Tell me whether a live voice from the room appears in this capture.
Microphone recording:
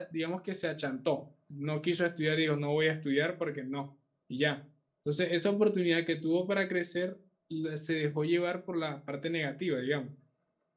Yes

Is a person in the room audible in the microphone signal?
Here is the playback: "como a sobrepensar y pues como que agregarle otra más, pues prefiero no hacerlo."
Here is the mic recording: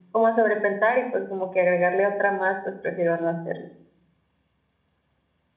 No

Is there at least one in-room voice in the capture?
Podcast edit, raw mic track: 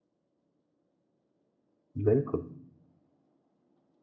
Yes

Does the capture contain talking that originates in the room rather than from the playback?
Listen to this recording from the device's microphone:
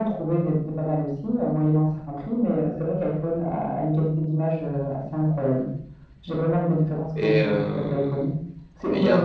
Yes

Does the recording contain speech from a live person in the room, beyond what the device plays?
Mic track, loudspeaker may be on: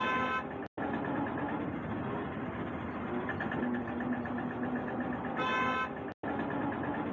No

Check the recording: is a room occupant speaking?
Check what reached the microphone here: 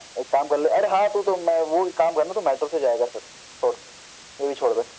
No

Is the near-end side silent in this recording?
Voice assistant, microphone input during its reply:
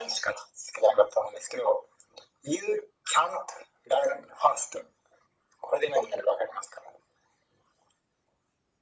Yes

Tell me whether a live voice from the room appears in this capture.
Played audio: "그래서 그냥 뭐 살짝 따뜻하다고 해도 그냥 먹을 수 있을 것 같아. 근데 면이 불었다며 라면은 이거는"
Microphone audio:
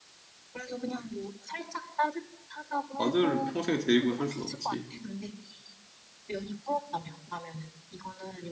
Yes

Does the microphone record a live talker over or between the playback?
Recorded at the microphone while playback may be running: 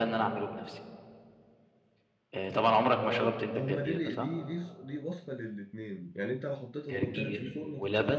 Yes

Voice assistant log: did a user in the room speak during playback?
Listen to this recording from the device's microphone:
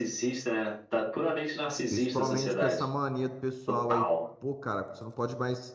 Yes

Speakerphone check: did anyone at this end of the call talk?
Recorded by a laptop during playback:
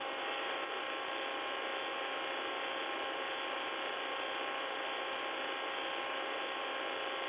No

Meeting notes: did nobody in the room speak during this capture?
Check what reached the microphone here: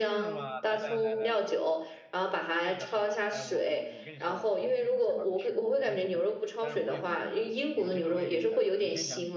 No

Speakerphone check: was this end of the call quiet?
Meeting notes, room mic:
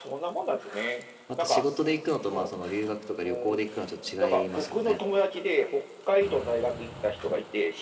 No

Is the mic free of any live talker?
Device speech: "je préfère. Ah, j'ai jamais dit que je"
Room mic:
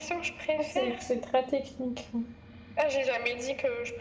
No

